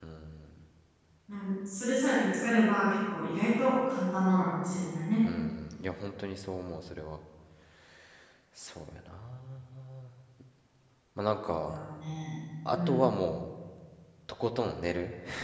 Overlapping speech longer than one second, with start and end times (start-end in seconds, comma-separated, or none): none